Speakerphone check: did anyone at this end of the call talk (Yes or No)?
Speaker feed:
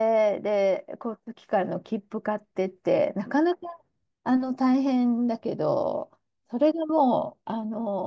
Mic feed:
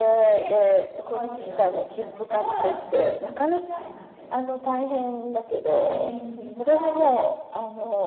Yes